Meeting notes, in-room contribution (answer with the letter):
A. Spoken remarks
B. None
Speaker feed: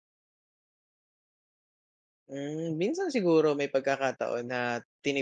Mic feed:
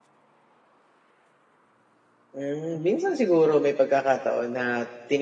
B